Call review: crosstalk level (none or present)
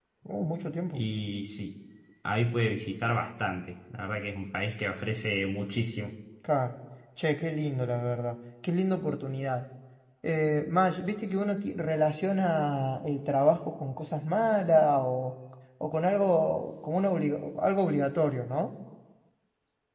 none